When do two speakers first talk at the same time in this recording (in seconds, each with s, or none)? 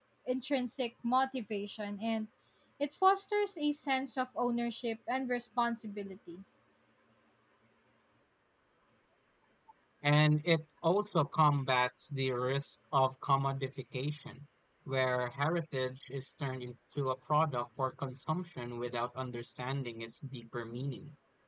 none